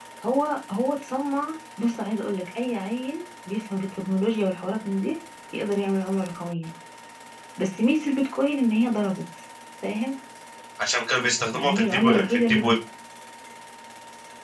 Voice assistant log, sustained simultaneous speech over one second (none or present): present